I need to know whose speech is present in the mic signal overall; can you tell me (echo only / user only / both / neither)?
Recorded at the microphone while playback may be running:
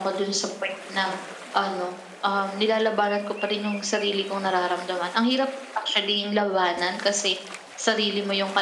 echo only